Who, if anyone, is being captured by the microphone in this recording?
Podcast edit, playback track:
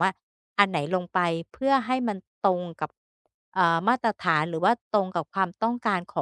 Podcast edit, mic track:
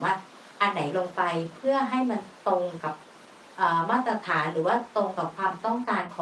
echo only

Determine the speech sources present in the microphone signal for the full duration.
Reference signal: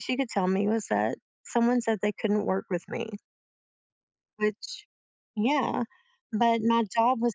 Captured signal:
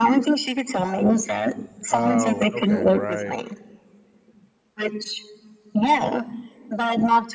both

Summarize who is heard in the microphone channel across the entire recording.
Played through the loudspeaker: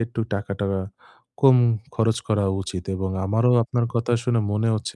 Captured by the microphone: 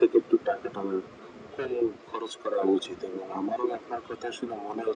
echo only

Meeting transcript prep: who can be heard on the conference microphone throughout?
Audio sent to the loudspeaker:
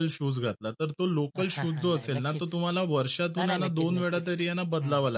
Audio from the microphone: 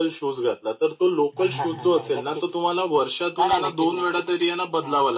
both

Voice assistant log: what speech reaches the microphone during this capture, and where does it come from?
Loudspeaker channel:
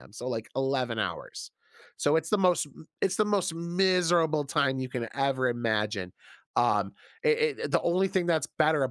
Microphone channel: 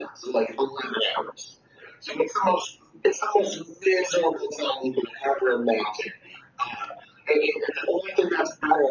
echo only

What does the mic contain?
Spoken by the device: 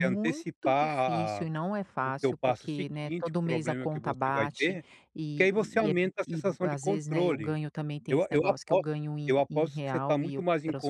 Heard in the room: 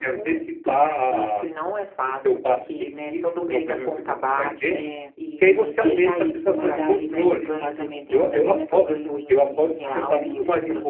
both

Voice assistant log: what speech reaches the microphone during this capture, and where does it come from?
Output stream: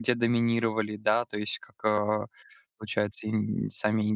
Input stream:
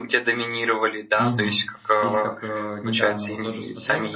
both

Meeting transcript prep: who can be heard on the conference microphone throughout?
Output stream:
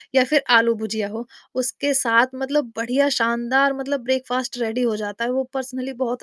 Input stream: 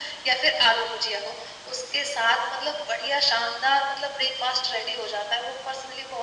echo only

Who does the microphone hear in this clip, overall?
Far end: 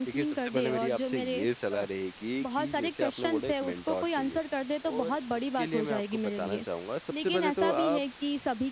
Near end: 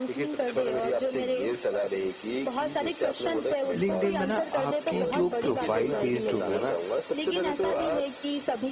both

